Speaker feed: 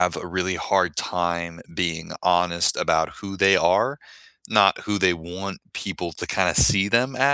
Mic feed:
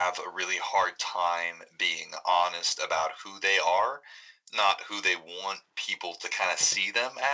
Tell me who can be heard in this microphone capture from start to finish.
echo only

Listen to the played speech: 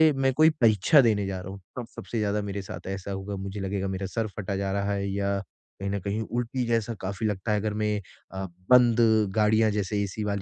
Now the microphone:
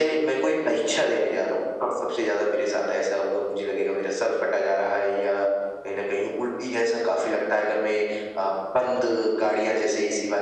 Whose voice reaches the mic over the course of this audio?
echo only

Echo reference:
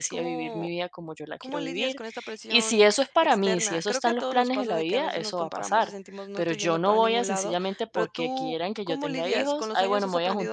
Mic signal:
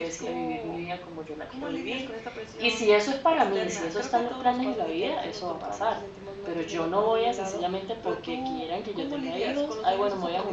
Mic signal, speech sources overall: echo only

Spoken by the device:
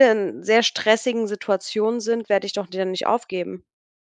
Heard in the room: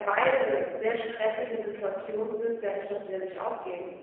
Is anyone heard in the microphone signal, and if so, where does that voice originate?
echo only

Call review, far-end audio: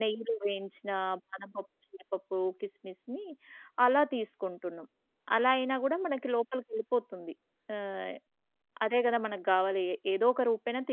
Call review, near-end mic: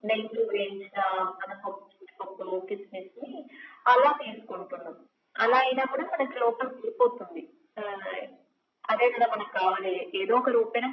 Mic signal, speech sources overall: echo only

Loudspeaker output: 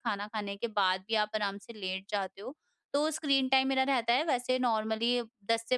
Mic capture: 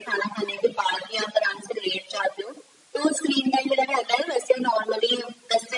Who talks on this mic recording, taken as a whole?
echo only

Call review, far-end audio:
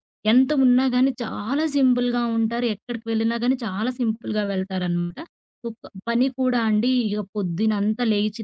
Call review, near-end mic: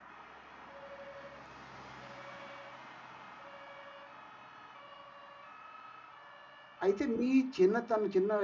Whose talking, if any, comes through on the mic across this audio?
user only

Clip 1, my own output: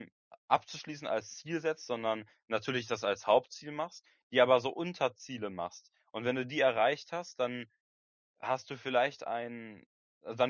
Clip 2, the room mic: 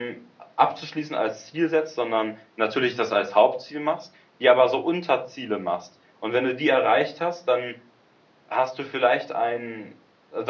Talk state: echo only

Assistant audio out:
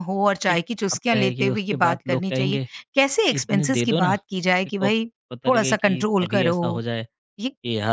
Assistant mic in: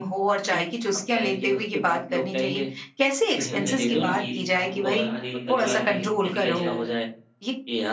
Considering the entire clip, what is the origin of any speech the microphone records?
both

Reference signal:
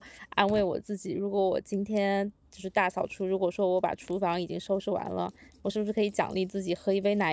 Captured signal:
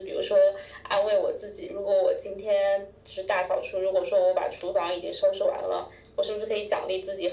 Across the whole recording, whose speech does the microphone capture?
echo only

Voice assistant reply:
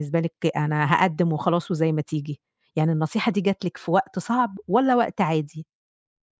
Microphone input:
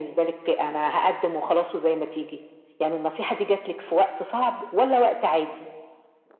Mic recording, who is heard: echo only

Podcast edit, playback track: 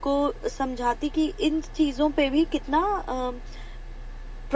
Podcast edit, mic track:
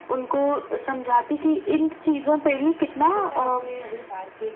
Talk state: both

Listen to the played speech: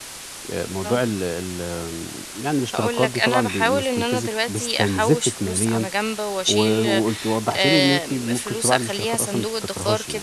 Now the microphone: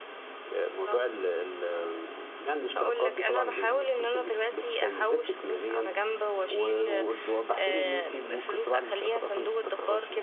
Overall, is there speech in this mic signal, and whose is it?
echo only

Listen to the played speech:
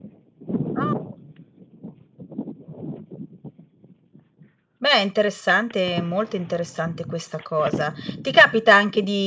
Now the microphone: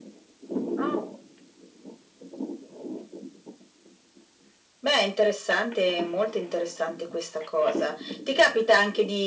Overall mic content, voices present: echo only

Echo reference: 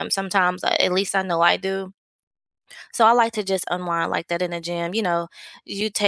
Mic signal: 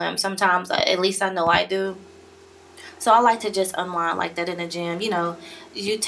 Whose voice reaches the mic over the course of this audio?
echo only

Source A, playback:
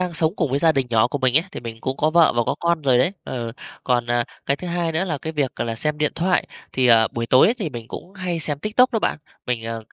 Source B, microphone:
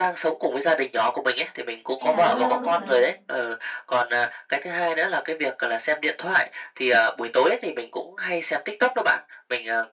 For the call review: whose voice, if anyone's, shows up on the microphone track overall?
both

